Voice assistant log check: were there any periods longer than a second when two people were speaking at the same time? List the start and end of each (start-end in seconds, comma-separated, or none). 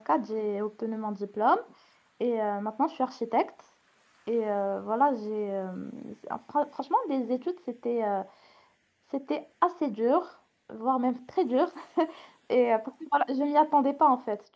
none